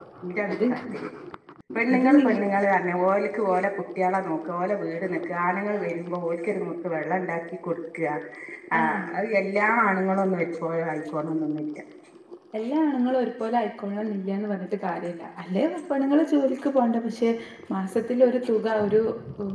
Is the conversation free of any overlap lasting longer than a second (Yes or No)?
Yes